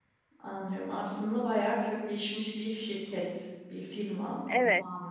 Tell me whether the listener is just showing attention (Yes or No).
No